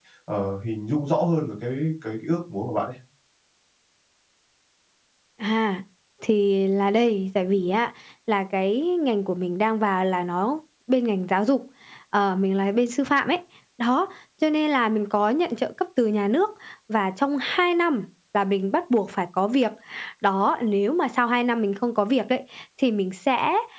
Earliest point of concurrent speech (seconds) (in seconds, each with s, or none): none